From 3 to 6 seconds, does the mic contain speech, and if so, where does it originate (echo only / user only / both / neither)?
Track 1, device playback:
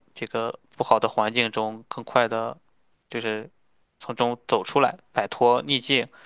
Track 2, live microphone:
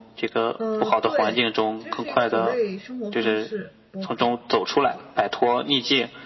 both